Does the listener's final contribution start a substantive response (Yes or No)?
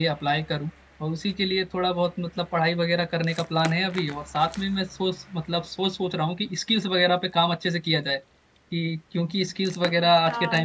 Yes